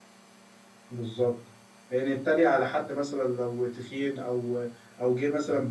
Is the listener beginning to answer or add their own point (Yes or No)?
No